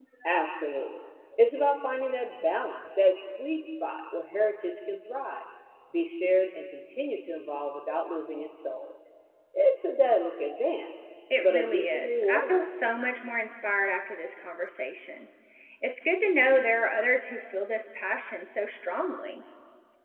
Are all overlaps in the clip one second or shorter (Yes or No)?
No